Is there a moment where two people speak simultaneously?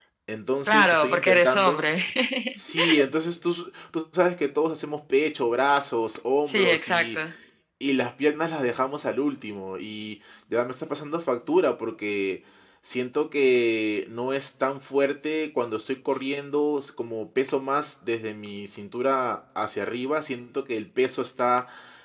Yes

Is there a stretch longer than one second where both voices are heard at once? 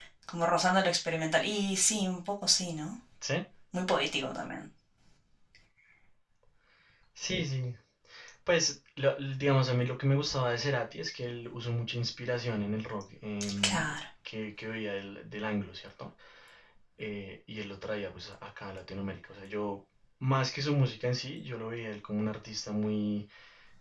No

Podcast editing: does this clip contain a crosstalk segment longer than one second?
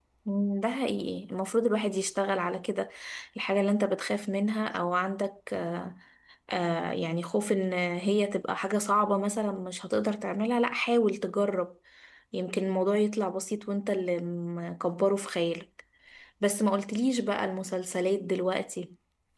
No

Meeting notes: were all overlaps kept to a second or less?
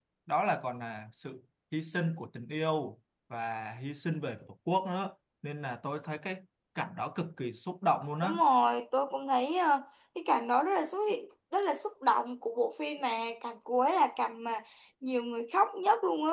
Yes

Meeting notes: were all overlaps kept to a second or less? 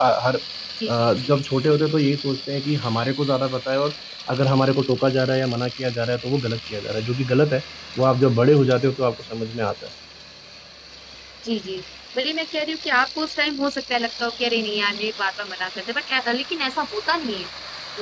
Yes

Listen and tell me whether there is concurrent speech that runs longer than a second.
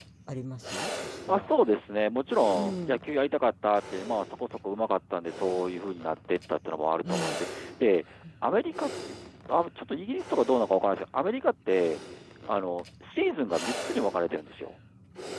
No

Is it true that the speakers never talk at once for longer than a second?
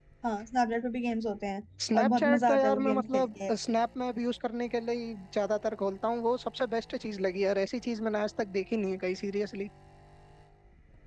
No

